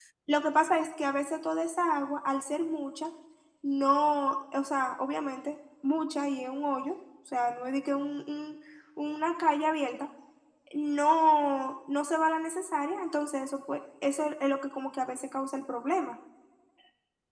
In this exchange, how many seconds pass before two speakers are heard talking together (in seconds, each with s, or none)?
none